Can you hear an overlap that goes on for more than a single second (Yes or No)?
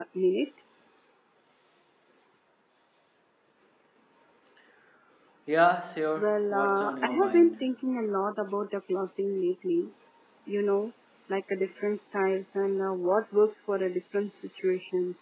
Yes